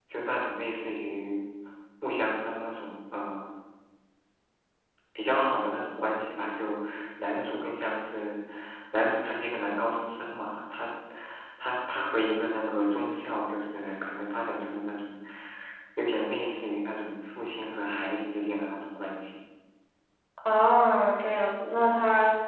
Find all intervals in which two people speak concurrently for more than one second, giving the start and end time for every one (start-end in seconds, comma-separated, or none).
none